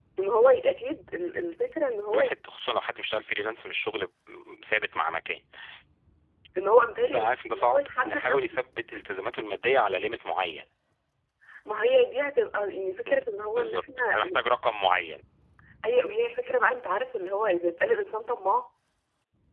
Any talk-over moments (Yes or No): Yes